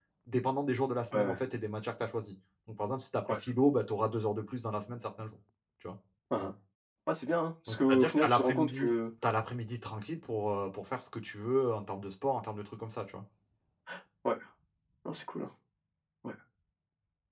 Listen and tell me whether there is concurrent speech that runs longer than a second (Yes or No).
Yes